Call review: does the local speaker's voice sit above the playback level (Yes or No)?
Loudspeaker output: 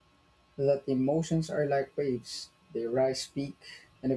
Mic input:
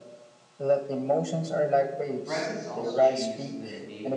No